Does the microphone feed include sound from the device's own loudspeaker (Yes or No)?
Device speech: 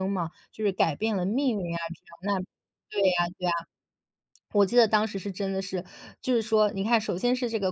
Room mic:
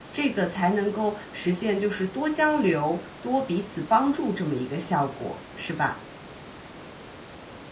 No